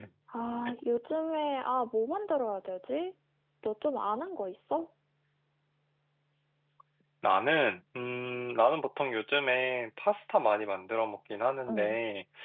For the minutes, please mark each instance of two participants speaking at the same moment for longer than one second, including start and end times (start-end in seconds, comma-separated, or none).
none